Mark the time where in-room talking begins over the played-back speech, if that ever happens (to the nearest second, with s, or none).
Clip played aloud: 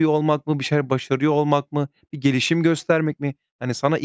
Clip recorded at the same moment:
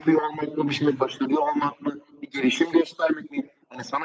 1 s